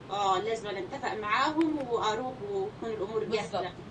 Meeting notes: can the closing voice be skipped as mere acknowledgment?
No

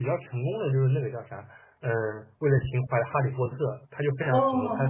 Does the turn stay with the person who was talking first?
No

